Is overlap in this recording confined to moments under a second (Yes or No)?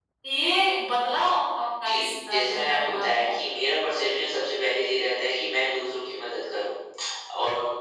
No